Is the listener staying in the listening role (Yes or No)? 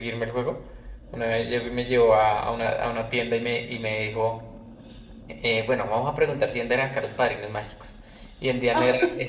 Yes